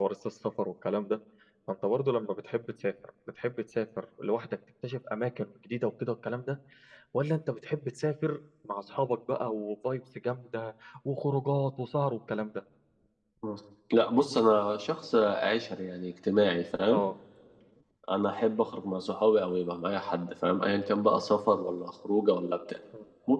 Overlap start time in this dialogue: none

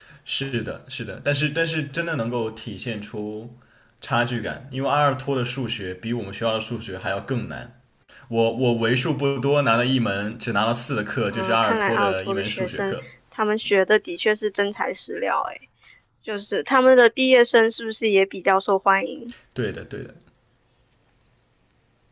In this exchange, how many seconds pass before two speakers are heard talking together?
11.3 s

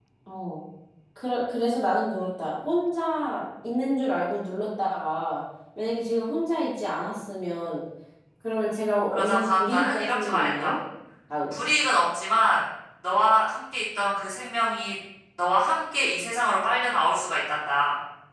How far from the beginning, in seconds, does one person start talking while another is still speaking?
9.1 s

